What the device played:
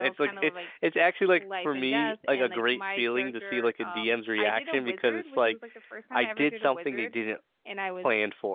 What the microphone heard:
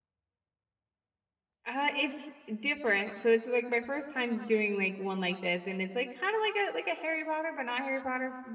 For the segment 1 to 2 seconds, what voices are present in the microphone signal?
user only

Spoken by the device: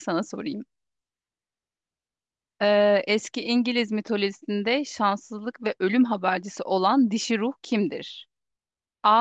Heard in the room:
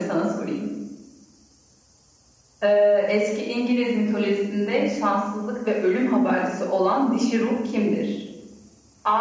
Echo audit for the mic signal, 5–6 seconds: echo only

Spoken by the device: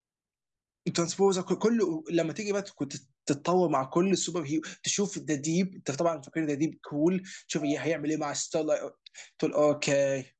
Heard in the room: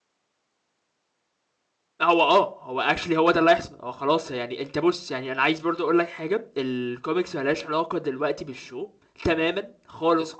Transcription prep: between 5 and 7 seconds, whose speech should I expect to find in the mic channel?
user only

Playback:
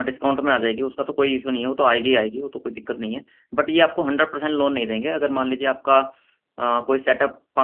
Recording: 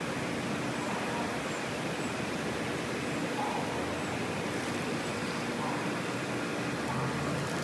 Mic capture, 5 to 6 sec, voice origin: neither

